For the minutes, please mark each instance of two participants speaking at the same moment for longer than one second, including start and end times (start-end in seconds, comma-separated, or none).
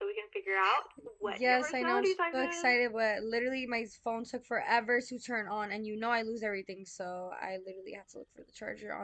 1.2-2.8